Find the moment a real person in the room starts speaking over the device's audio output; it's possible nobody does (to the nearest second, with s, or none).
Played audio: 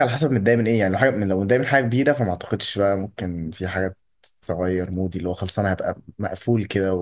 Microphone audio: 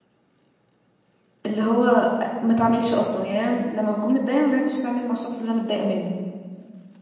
1 s